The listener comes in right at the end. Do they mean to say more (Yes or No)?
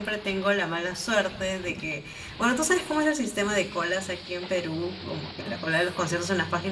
No